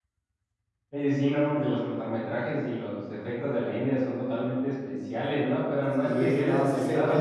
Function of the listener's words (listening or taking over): taking over